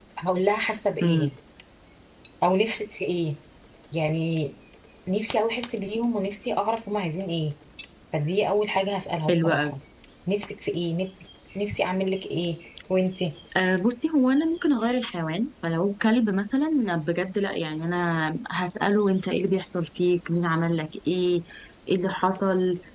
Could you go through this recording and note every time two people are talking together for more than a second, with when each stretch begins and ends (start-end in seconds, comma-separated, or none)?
none